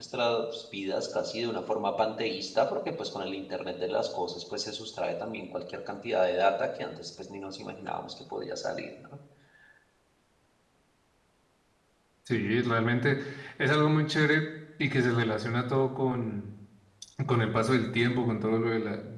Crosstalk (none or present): none